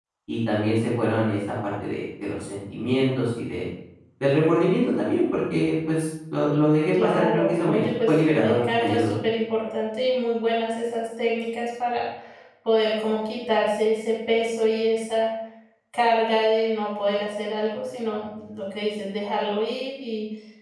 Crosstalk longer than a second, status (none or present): present